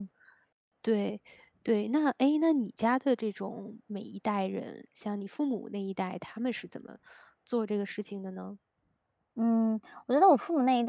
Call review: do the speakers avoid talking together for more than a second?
Yes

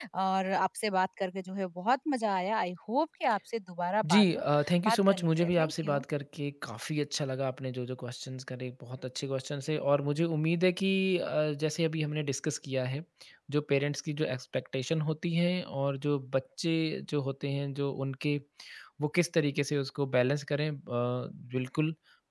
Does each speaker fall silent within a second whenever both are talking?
No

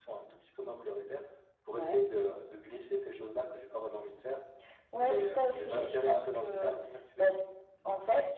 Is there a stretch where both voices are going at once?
Yes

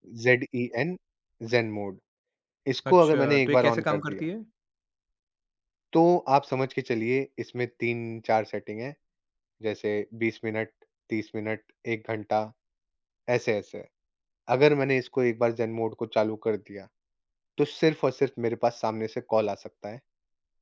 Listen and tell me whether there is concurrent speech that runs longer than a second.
Yes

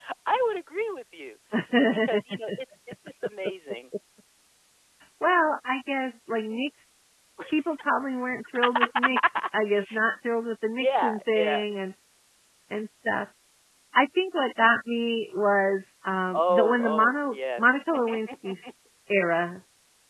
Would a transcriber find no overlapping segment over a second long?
No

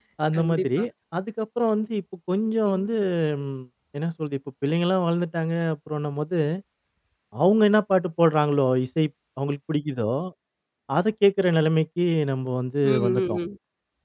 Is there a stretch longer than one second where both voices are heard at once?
No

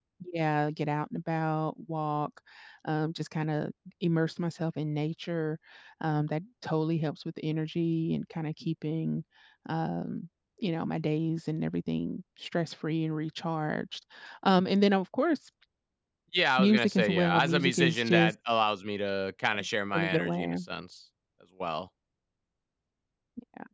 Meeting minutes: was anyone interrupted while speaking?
Yes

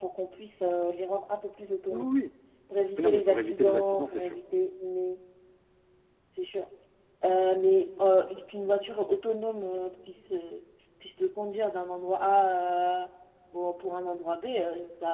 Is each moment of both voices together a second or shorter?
No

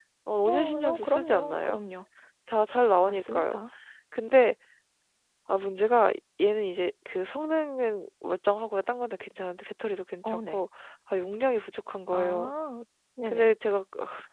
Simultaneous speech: Yes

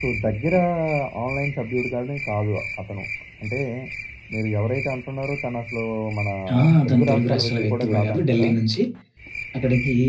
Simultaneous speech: Yes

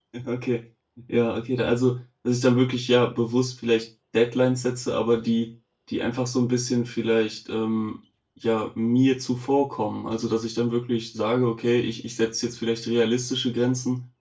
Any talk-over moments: No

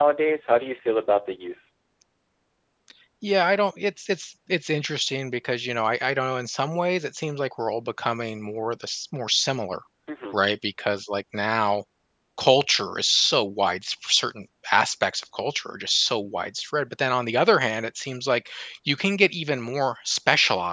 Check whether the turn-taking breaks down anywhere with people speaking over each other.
No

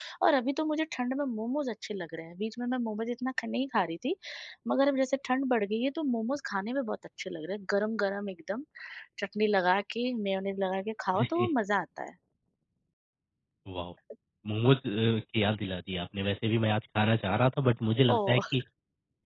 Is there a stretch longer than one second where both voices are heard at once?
No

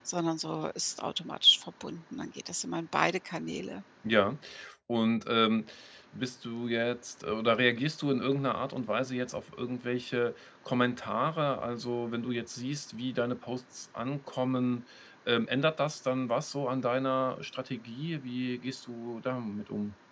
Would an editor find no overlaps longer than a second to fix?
Yes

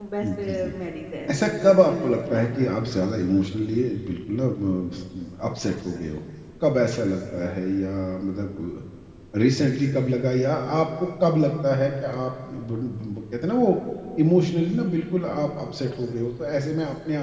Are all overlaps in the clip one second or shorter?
No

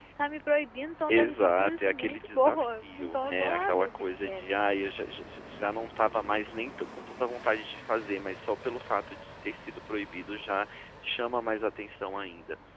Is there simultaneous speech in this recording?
Yes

